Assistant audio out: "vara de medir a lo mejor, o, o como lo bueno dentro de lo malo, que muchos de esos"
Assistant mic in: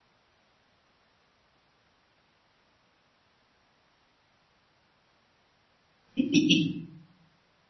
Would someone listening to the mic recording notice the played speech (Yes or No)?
No